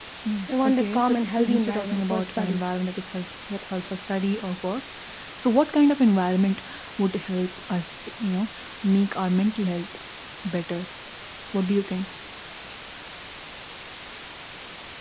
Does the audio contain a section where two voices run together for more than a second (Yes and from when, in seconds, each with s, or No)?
Yes, from 0.6 s